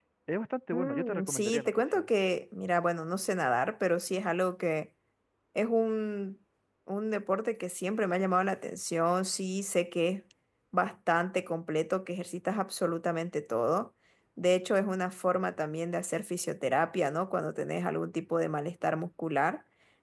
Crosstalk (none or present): present